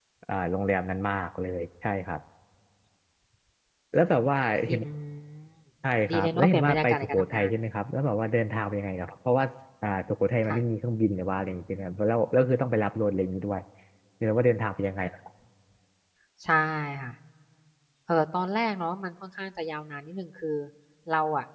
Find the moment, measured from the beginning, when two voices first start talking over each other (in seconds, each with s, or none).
6.1 s